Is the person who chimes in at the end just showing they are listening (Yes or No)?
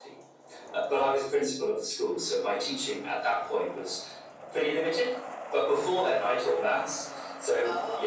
Yes